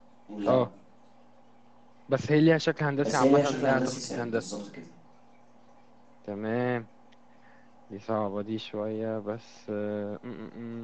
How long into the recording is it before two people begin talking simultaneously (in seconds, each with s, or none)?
3.0 s